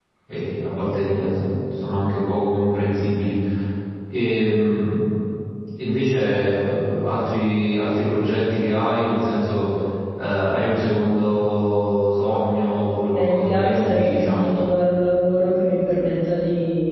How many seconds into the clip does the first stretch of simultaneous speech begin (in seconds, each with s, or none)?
13.1 s